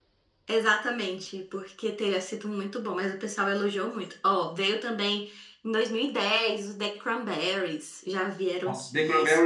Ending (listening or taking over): taking over